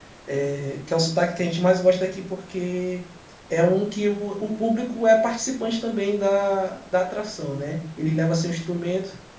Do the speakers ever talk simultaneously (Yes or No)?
No